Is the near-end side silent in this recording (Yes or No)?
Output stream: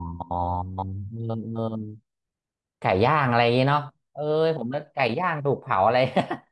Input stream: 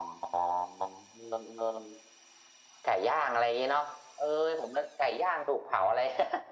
Yes